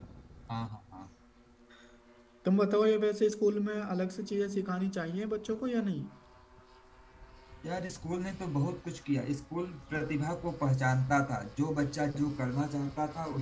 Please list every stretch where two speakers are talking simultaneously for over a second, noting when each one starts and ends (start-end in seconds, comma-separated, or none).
none